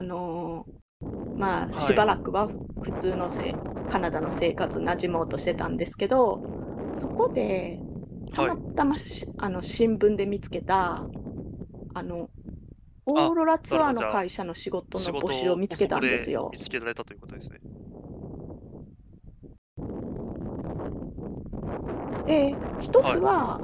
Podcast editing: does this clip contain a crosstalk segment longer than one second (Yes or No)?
Yes